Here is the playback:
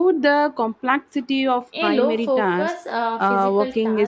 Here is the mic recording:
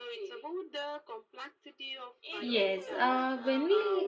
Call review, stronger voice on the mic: user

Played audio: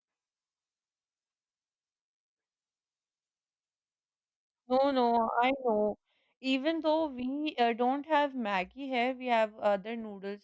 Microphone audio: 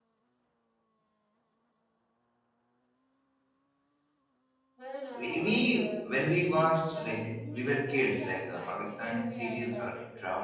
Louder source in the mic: user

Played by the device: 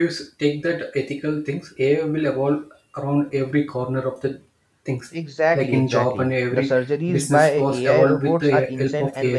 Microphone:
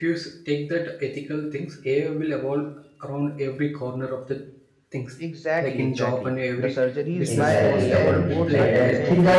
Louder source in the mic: user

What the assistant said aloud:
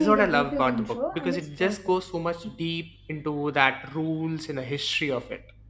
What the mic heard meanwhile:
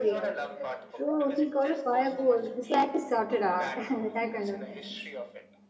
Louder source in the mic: user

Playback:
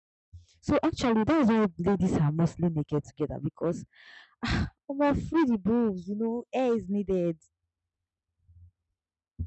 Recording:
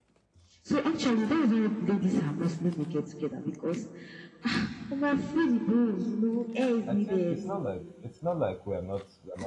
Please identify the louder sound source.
echo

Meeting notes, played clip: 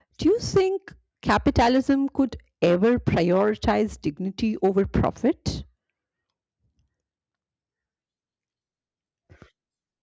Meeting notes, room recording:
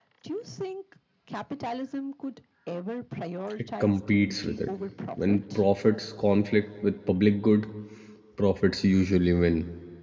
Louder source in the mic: user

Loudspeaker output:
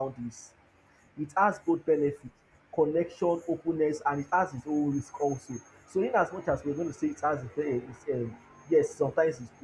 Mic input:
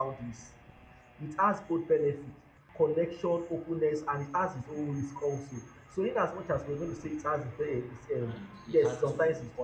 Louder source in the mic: echo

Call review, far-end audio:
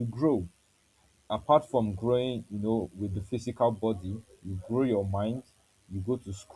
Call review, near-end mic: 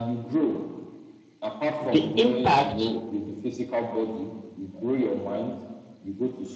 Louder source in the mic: user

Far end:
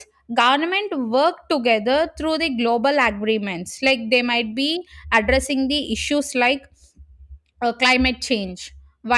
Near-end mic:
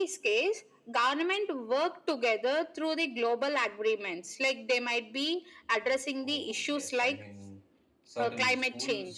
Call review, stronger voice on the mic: echo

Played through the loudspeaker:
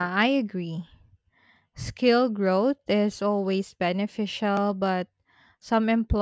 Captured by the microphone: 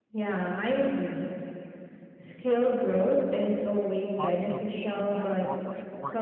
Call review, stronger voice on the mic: echo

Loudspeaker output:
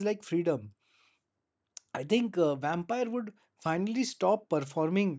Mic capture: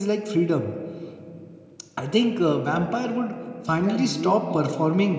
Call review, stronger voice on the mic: echo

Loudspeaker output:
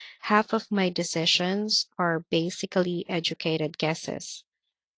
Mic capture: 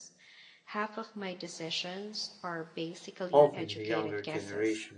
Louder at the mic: user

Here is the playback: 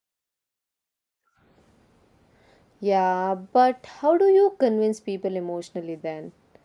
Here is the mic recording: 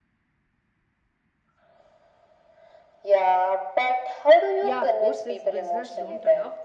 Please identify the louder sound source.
echo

